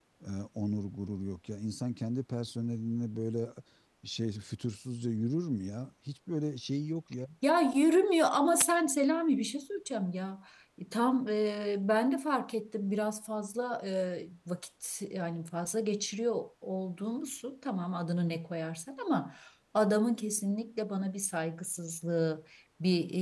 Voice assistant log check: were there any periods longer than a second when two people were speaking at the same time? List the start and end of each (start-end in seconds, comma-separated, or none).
none